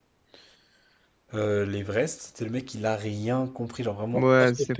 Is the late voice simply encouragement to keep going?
No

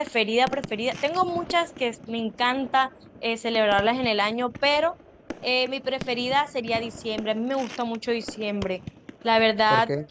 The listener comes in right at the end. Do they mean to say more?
No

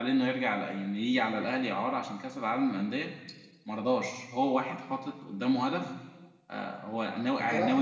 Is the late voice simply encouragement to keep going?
Yes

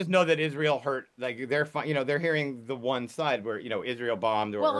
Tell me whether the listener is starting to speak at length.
Yes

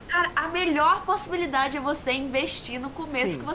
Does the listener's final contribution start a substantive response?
Yes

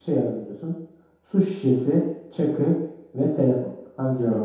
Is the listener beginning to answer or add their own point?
Yes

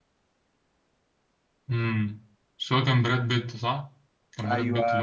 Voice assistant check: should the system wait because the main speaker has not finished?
No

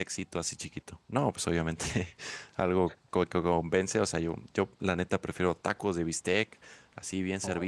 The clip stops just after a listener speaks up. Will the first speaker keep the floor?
Yes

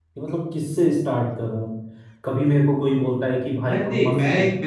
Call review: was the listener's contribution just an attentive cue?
No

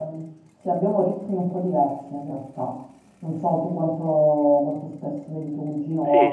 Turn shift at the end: Yes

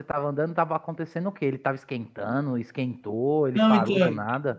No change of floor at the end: No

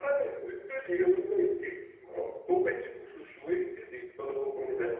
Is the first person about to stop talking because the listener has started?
No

